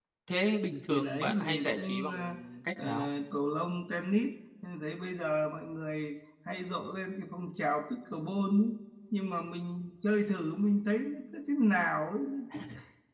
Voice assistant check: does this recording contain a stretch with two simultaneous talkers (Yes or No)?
Yes